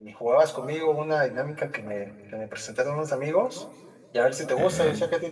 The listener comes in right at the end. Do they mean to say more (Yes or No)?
No